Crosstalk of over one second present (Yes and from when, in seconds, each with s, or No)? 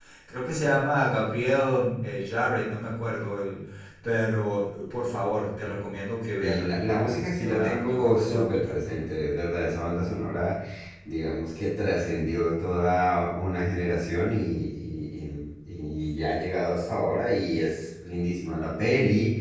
Yes, from 6.4 s